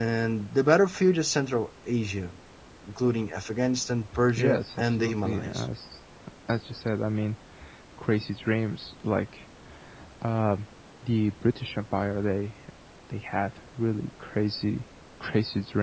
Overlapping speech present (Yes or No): Yes